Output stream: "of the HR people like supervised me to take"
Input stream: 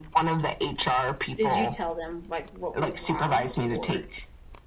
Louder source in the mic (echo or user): echo